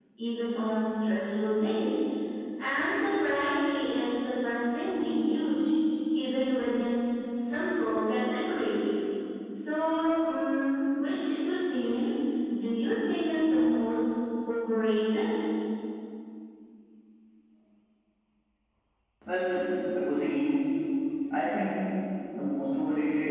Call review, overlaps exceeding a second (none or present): none